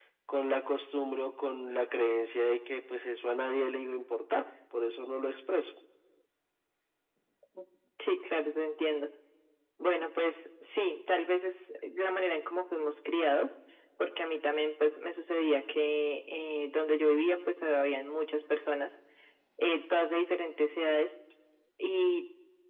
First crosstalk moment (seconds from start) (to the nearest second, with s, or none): none